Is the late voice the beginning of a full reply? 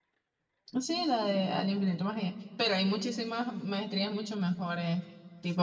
Yes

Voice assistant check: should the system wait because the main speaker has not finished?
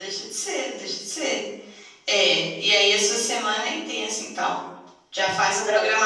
Yes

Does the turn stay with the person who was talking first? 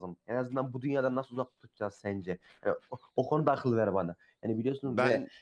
Yes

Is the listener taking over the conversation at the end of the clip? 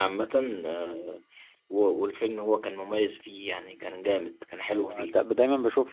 Yes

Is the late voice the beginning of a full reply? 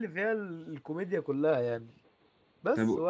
No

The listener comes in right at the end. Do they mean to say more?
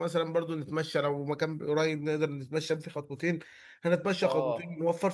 No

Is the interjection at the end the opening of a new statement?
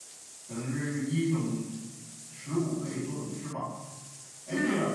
No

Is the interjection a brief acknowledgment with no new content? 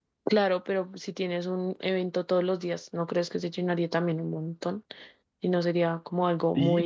No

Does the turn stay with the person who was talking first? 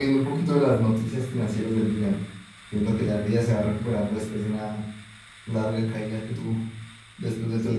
No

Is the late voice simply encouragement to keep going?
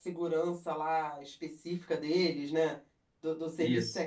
Yes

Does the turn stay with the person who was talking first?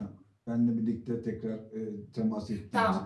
No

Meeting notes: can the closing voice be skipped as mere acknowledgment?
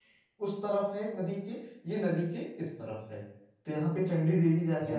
Yes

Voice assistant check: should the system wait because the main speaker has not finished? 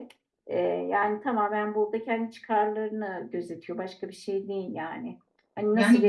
Yes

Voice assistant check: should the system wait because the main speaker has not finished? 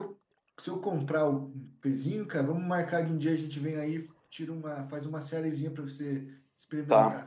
No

